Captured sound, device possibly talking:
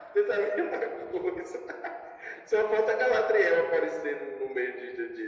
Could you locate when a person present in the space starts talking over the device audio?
none

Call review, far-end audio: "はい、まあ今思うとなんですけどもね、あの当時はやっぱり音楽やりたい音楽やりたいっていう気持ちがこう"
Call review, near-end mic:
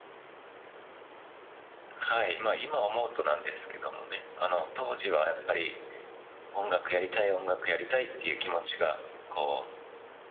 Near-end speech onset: none

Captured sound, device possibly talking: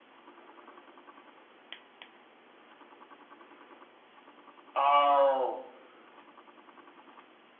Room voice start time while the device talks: 4.8 s

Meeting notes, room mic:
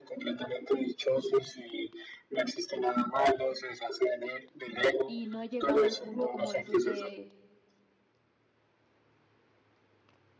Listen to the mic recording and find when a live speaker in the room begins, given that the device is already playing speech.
5.0 s

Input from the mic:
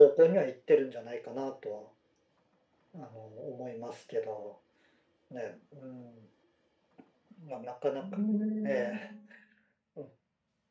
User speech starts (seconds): 8.1 s

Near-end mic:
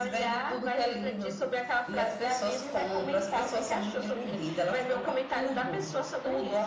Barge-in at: none

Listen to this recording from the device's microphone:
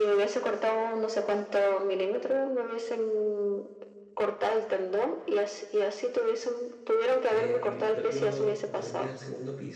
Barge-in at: 7.2 s

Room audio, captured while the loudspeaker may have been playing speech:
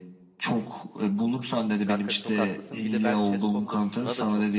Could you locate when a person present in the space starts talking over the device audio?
1.8 s

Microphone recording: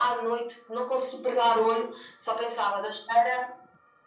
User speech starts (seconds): none

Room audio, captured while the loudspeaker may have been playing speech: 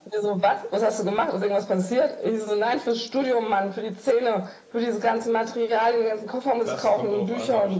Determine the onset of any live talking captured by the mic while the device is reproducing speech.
6.6 s

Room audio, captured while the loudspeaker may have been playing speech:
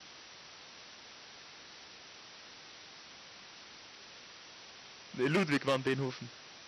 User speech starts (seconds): 5.1 s

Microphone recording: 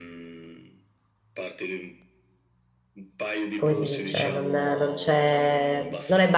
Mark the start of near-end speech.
3.5 s

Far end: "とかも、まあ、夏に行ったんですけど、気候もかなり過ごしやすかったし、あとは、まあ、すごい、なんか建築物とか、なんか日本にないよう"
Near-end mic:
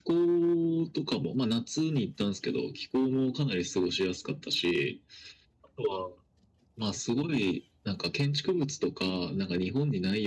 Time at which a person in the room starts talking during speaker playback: none

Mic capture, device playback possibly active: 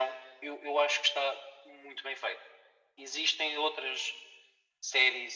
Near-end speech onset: none

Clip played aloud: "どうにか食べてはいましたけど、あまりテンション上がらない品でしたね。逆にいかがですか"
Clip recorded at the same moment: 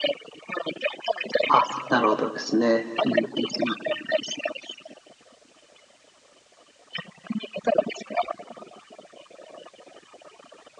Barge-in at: 1.5 s

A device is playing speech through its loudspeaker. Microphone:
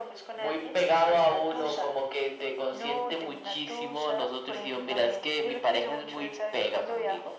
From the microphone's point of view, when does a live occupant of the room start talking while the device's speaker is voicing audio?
none

